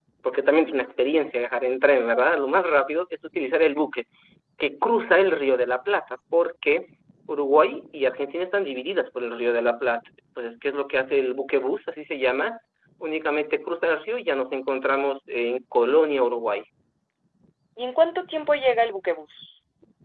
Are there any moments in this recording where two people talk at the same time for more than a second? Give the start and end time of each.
none

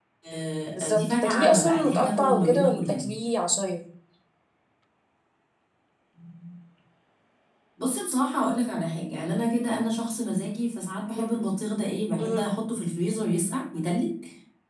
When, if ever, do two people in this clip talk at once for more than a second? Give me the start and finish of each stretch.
0.7-3.1

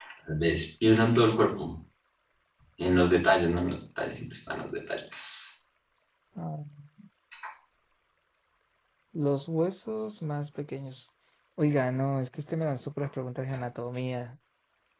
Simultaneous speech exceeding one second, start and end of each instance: none

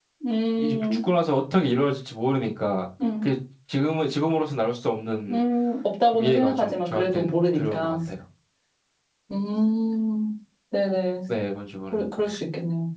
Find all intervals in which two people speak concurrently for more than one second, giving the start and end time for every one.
6.1-8.0

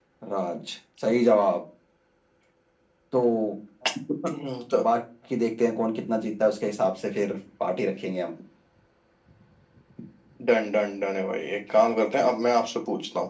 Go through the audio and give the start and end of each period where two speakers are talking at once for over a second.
none

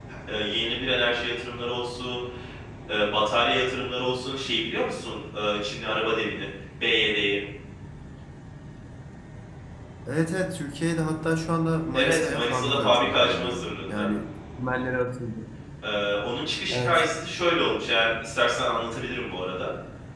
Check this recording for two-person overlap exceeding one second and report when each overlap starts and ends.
11.9-14.1

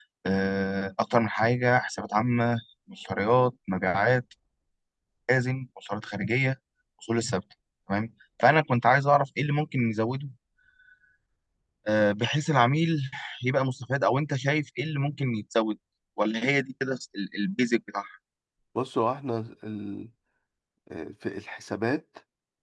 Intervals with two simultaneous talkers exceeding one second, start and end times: none

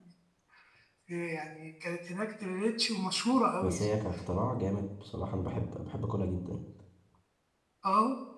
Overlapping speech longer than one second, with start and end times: none

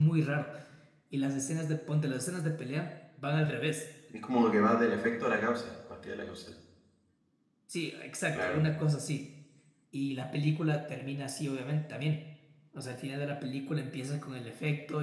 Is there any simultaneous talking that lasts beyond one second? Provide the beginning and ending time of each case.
none

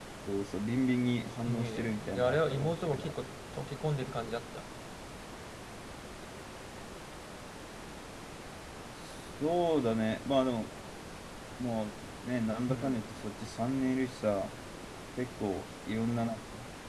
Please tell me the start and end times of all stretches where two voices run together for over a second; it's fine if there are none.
1.5-3.1

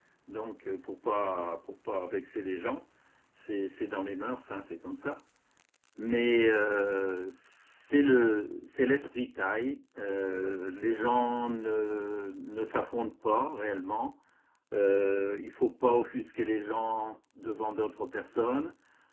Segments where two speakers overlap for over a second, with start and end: none

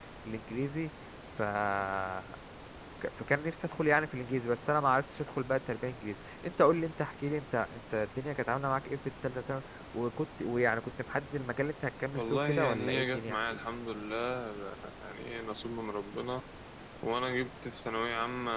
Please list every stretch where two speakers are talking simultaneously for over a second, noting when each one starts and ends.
12.1-13.6

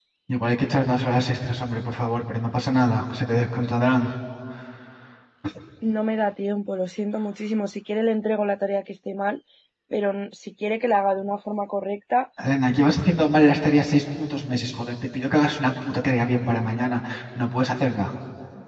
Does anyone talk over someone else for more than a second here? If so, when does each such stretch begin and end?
none

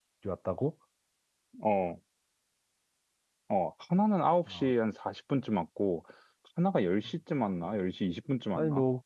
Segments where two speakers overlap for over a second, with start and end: none

